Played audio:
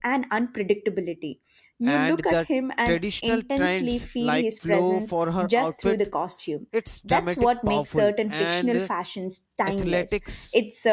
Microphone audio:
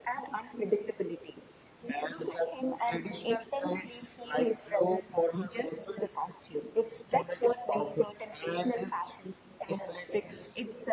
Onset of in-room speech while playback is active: none

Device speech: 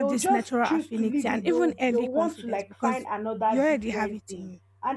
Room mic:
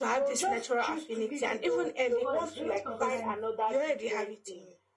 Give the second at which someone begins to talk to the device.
2.2 s

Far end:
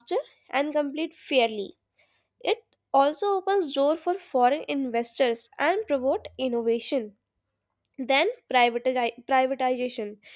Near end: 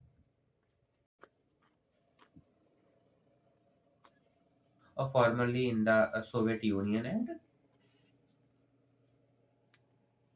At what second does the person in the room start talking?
4.9 s

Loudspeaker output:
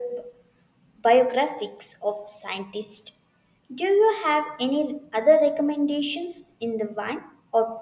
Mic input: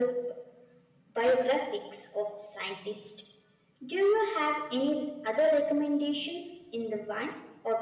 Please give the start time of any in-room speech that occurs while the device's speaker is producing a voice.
none

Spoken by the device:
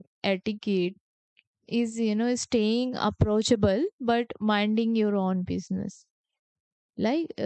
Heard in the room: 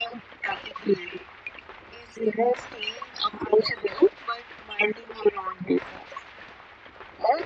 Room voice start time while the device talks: none

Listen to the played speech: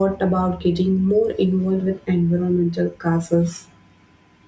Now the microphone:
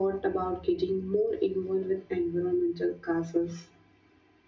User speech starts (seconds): none

